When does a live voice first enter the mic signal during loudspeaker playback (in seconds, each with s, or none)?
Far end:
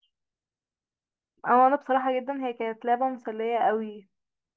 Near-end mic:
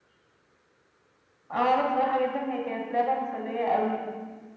none